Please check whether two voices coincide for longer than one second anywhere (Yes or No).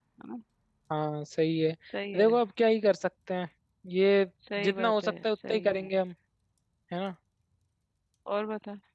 Yes